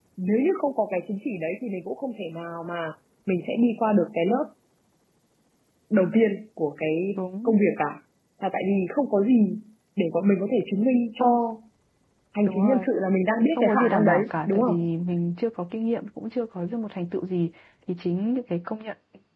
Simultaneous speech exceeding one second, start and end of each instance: 13.6-14.9

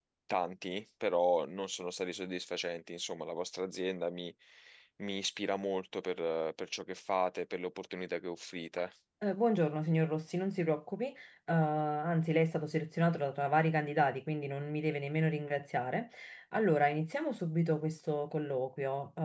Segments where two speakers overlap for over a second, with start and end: none

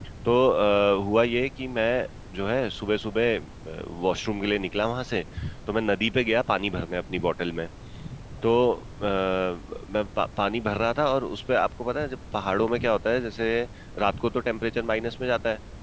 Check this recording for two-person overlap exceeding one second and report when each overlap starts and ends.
none

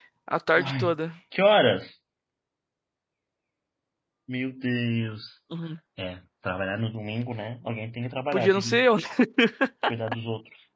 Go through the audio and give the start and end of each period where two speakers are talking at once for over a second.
none

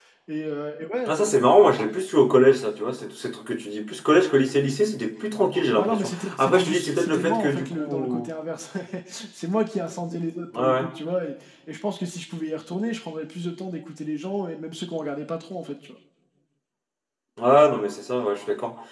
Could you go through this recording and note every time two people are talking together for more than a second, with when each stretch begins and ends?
5.8-8.3

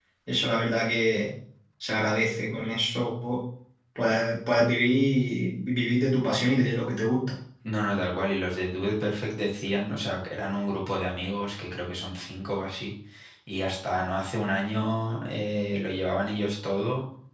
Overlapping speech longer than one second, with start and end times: none

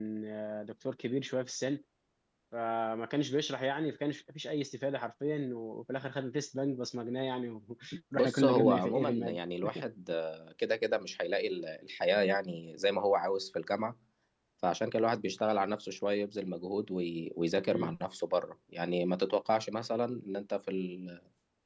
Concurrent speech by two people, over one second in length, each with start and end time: 8.2-9.4

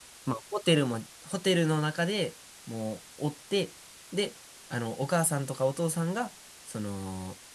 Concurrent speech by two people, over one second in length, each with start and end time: none

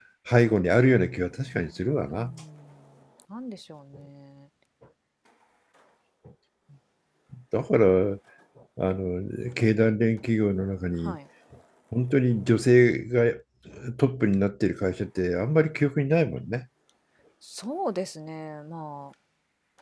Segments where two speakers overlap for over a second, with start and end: none

